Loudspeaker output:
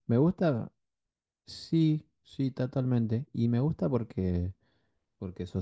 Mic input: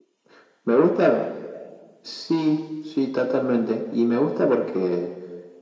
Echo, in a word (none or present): present